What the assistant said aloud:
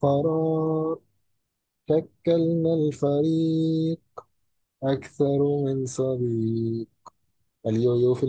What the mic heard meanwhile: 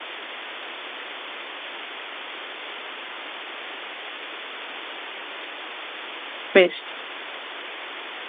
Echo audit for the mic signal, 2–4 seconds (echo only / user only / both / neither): neither